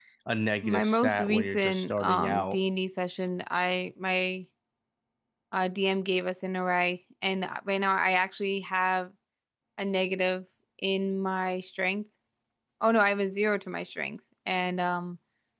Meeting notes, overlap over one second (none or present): present